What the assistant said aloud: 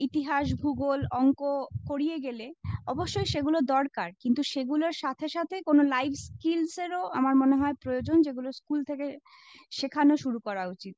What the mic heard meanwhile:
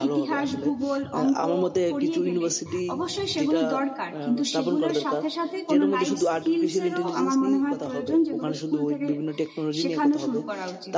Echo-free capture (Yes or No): No